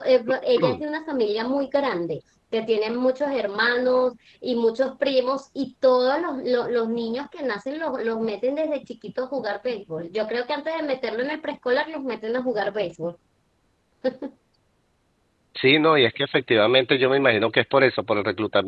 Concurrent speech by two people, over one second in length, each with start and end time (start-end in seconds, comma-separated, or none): none